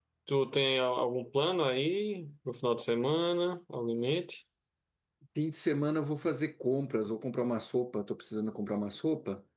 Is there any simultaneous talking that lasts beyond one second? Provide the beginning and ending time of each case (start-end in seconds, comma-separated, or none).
none